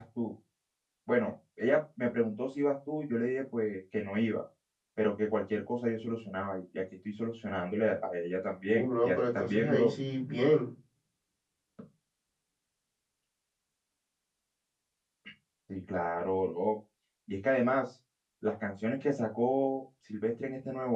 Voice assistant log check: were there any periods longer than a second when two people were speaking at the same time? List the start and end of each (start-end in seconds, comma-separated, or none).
8.7-9.9